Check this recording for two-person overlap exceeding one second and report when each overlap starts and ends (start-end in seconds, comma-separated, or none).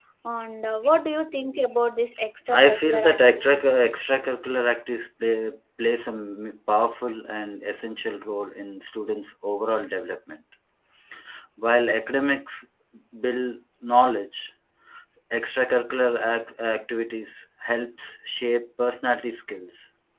2.5-3.8